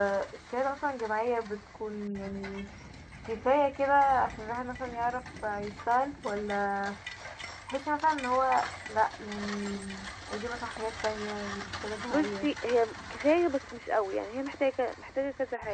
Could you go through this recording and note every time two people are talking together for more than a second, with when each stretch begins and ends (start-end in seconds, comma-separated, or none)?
none